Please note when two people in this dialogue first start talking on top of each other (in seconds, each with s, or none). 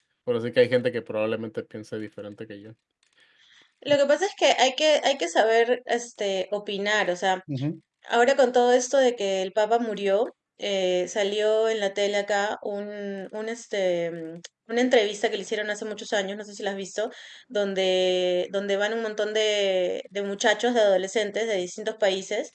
none